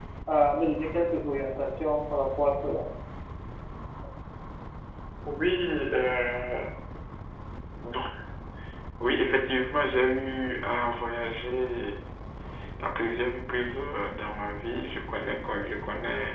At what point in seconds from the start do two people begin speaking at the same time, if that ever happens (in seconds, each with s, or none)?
none